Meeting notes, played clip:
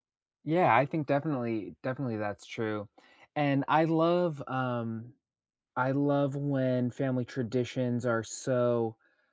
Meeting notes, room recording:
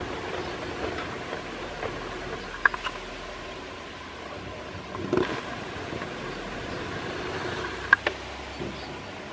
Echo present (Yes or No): No